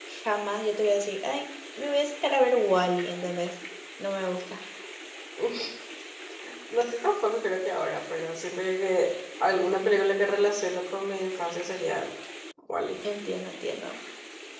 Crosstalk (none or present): none